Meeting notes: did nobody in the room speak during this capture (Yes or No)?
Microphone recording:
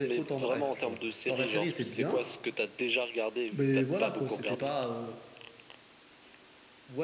No